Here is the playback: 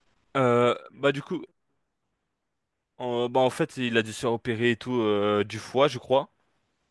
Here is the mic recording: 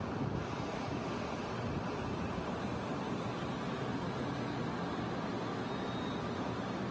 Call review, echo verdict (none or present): none